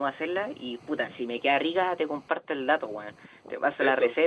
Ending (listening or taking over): listening